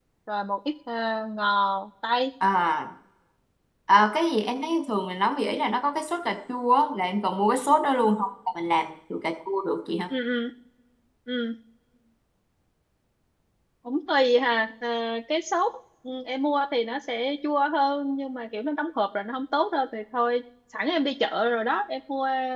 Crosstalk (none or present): none